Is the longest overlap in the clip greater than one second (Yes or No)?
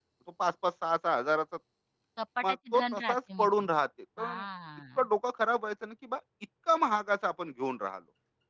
Yes